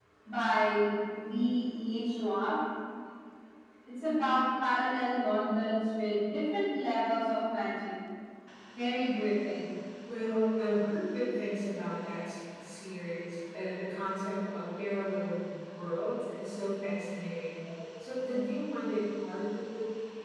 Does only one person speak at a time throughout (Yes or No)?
Yes